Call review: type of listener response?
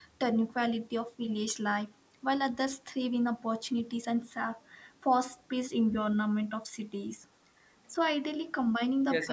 listening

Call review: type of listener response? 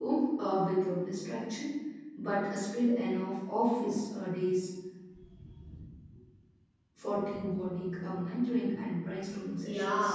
taking over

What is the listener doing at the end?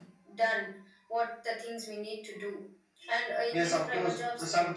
taking over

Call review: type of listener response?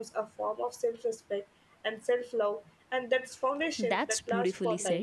taking over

